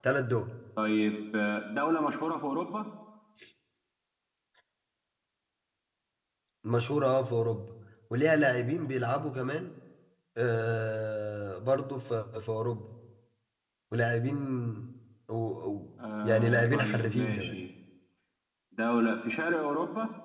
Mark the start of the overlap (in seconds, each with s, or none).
16.2 s